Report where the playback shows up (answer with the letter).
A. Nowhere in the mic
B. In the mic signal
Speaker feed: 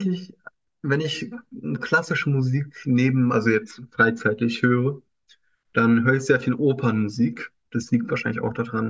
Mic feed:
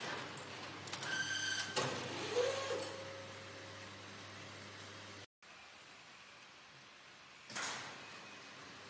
A